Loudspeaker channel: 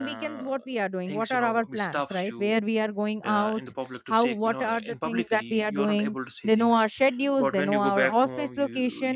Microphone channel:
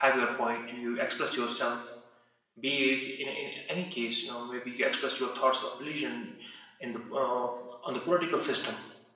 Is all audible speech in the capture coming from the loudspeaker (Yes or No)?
No